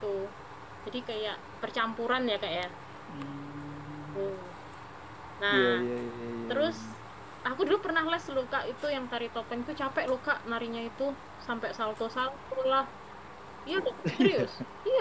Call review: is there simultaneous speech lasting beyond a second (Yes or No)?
No